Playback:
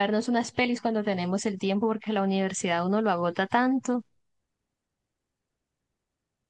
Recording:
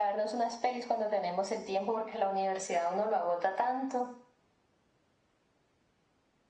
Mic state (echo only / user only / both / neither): echo only